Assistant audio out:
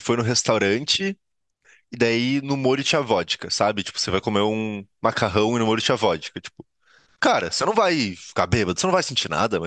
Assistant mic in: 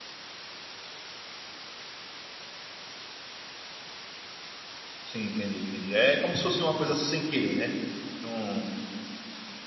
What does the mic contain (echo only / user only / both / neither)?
user only